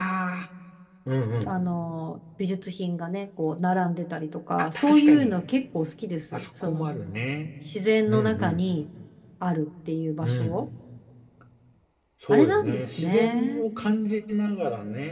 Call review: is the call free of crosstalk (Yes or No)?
No